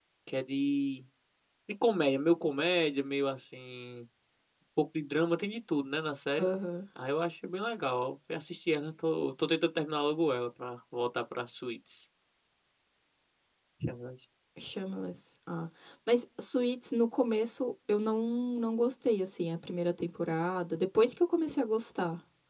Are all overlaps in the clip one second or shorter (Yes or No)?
Yes